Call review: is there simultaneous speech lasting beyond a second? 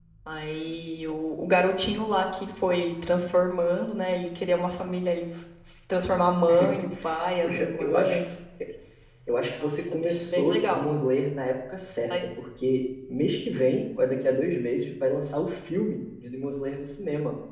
Yes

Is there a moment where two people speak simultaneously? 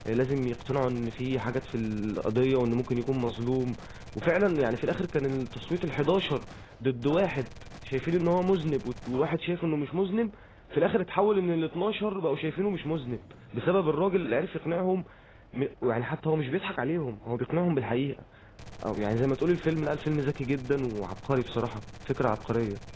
No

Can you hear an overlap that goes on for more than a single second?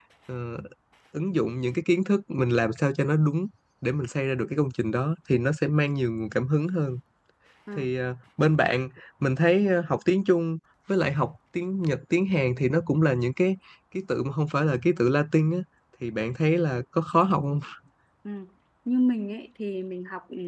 No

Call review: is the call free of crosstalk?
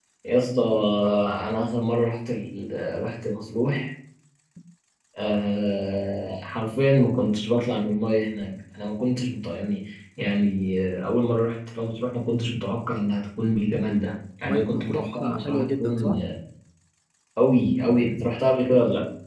No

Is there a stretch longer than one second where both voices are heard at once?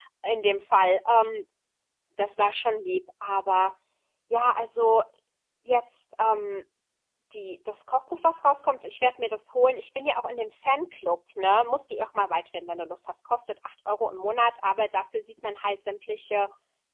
No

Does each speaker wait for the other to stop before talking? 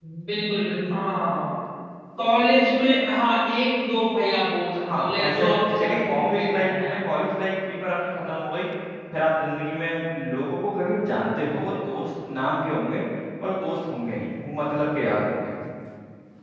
No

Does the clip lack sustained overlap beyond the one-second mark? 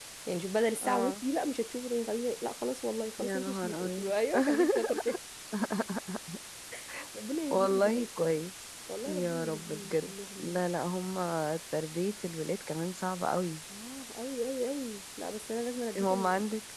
No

